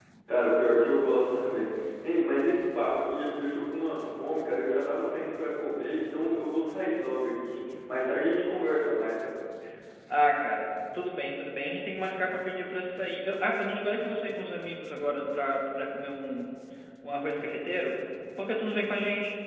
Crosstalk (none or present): none